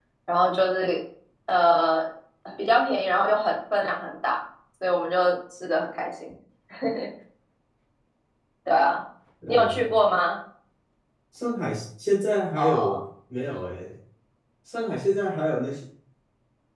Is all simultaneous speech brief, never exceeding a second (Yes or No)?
Yes